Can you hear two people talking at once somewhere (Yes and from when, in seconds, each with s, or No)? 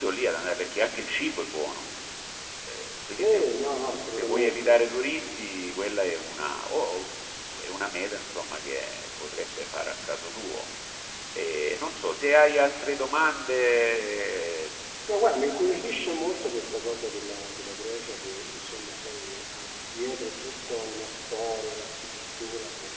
Yes, from 3.1 s